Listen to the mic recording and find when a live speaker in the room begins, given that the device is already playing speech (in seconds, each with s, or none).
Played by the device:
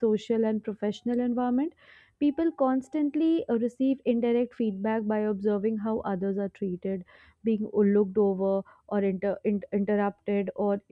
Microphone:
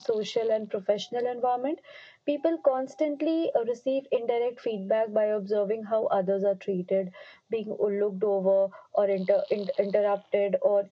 none